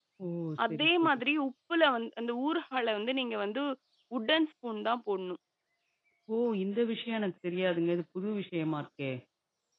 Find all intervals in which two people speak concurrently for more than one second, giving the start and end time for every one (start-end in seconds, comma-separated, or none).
none